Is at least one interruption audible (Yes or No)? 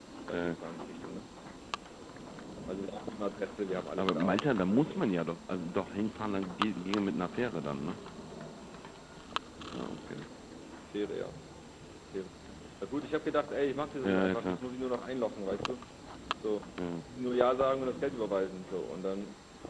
Yes